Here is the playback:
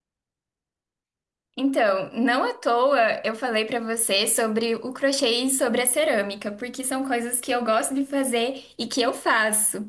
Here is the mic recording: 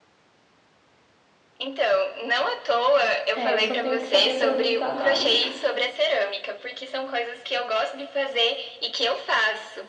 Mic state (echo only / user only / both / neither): both